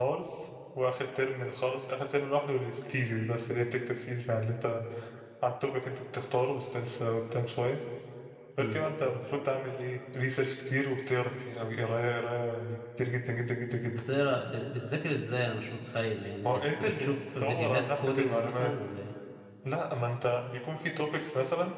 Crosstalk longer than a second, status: present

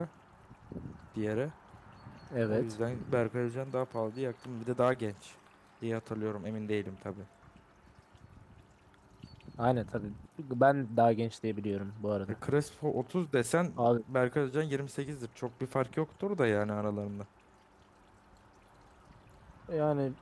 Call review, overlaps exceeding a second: none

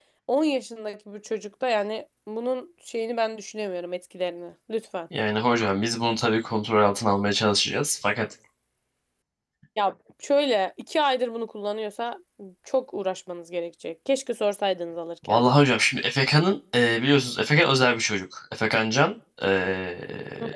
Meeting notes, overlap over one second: none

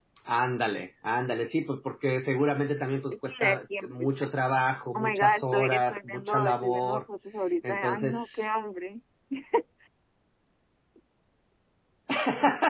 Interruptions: present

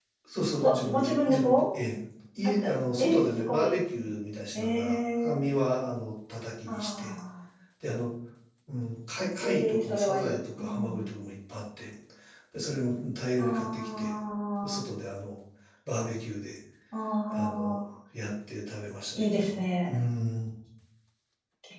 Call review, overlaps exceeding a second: present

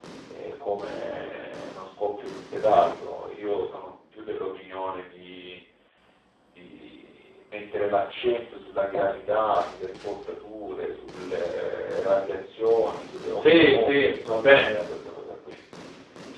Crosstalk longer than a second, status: present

